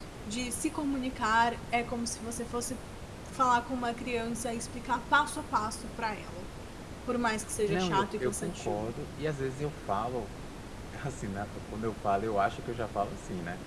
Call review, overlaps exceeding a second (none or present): present